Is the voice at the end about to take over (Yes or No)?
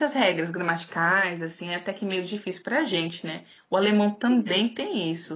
No